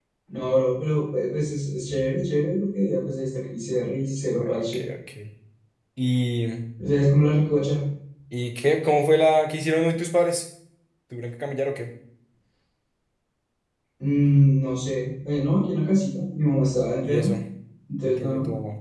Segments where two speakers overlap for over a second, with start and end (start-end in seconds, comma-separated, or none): none